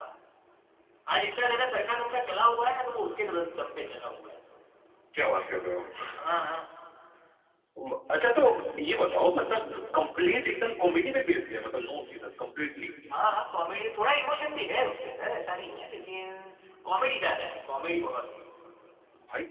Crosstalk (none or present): none